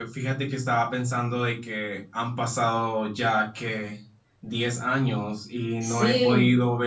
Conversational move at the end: listening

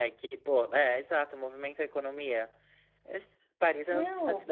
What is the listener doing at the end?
listening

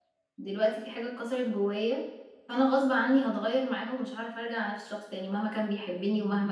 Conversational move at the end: listening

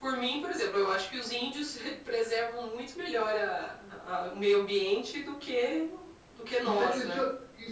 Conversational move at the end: taking over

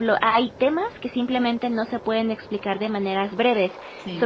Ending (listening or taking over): listening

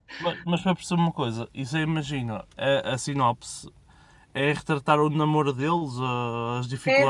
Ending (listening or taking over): taking over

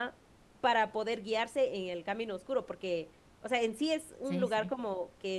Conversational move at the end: listening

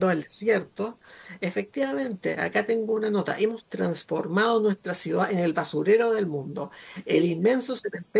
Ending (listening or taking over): listening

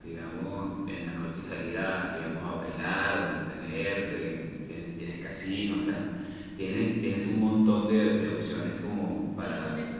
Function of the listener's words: taking over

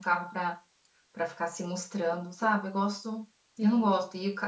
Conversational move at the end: listening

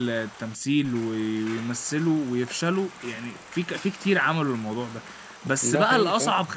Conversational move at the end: listening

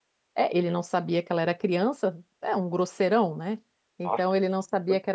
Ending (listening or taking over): listening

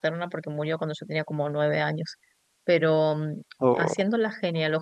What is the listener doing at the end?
listening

